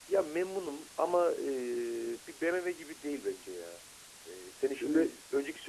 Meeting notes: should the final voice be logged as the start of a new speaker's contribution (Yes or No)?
No